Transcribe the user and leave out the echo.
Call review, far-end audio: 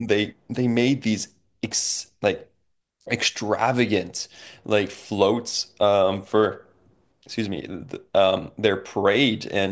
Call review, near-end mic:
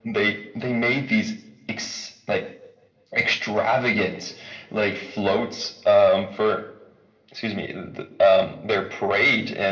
none

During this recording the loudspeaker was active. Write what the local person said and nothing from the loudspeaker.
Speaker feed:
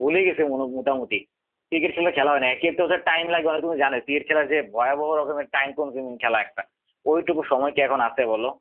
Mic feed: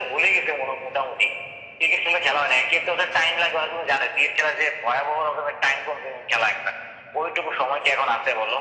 none

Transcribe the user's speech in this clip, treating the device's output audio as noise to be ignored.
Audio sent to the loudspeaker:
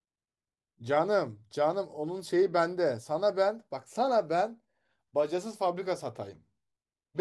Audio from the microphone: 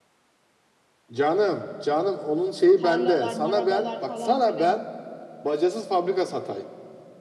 tarlalar, marabalar falan filan.

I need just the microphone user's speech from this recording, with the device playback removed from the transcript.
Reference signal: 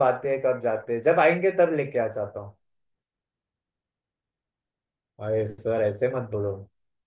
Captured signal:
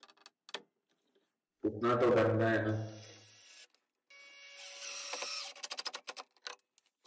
उतना तो बनना है ना

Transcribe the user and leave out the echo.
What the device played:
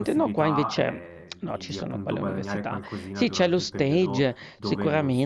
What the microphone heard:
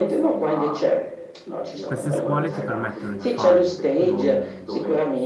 Queste scuole ti permettono di fare, mh,

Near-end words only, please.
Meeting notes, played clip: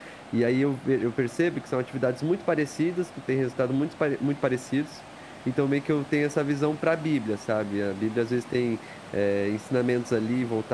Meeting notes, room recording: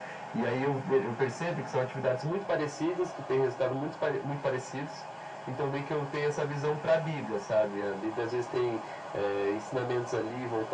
none

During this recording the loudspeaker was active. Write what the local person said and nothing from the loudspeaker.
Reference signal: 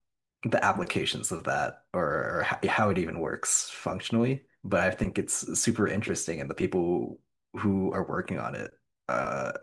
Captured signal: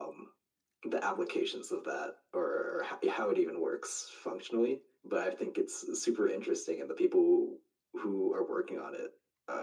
none

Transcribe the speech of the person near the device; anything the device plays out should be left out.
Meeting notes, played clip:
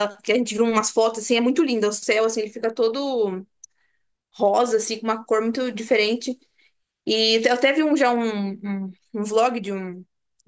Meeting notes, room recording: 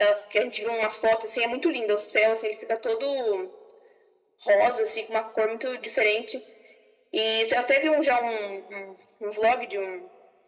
none

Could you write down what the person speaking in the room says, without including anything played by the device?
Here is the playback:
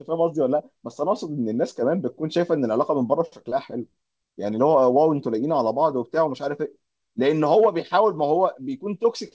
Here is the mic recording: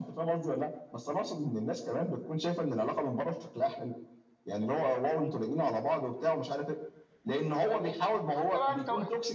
فاهمني فانت بقى انت و...

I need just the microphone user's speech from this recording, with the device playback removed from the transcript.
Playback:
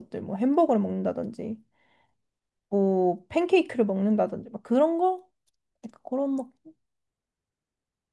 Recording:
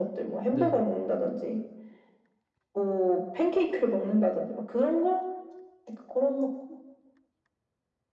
네.

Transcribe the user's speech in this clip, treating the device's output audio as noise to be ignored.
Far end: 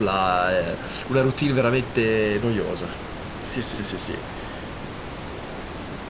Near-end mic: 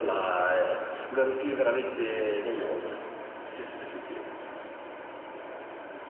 none

